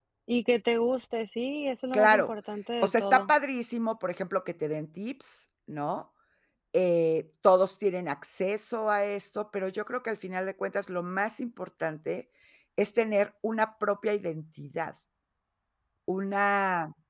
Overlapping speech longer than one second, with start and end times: none

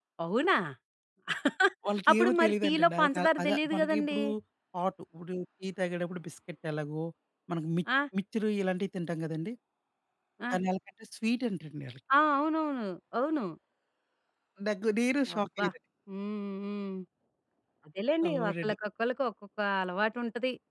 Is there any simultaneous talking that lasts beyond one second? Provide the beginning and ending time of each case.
2.1-4.2

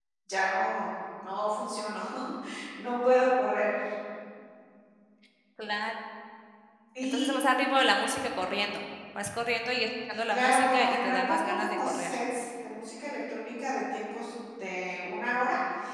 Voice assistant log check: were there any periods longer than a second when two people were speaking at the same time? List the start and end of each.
10.3-12.1

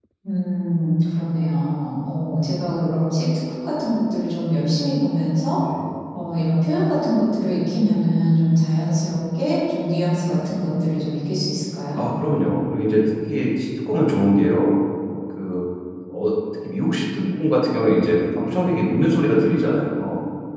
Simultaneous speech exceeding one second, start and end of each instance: none

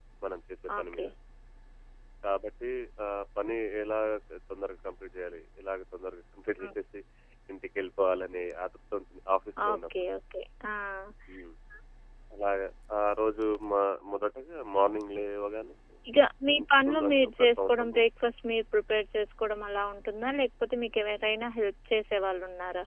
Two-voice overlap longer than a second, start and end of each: 16.6-18.0

